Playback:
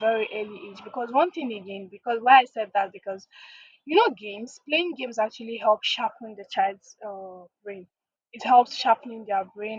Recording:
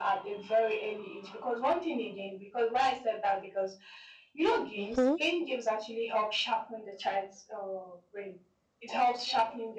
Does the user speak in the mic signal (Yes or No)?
Yes